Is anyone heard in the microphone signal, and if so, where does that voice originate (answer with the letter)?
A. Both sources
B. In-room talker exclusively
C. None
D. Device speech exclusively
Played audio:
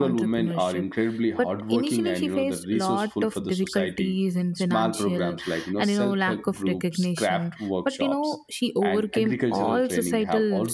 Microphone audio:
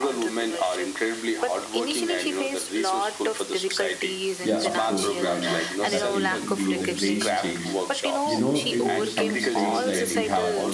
A